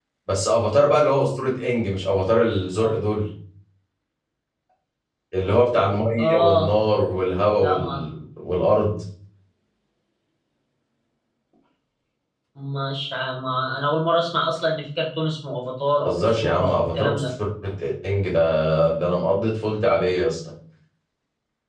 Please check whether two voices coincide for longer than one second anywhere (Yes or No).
Yes